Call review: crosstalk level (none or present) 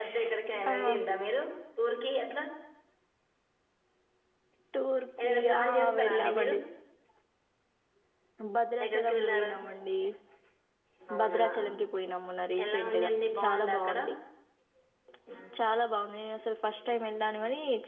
present